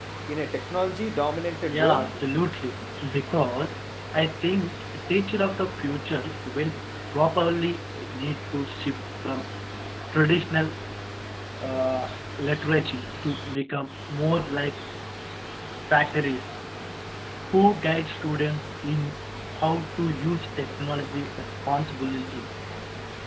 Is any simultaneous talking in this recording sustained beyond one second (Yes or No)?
No